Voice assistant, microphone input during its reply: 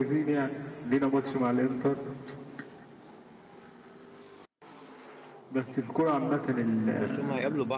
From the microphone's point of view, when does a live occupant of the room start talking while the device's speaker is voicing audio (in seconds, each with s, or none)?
6.7 s